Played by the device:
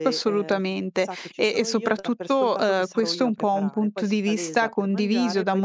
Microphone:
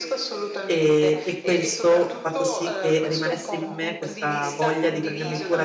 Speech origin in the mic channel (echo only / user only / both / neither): both